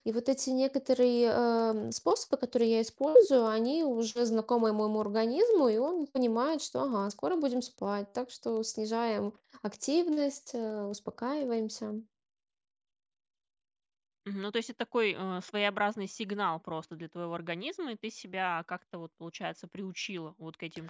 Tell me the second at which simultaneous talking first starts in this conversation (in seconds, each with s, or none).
none